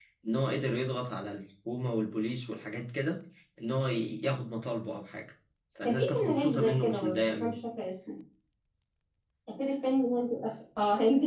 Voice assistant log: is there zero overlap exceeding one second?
No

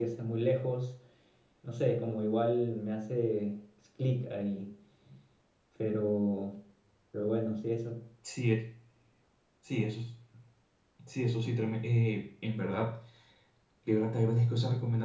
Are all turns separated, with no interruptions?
Yes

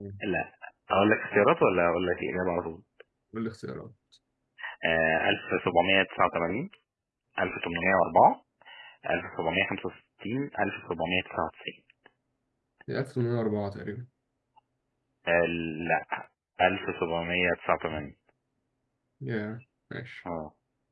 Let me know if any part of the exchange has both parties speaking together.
No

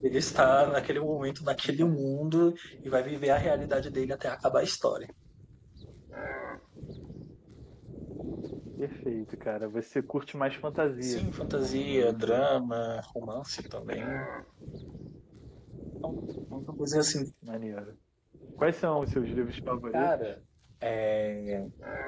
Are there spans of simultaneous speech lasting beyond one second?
Yes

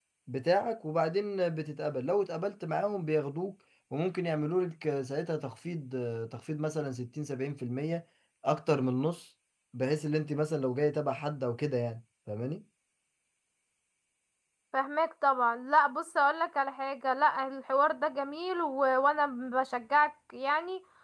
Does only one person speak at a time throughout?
Yes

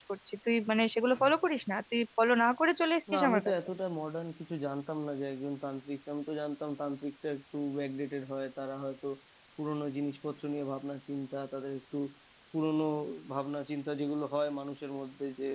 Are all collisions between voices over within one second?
Yes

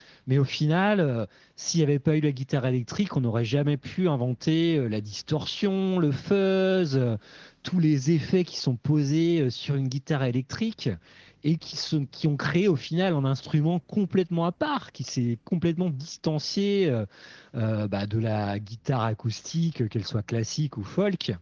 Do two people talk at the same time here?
No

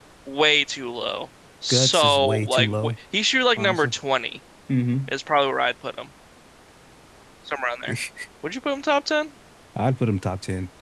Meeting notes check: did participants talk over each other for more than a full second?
Yes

